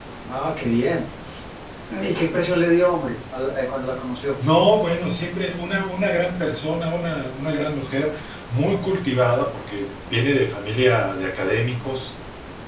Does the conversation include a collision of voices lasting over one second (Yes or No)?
No